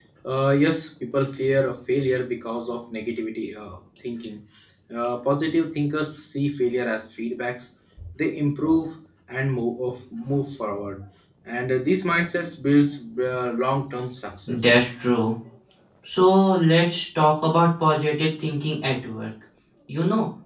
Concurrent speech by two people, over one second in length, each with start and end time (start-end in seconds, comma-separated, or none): none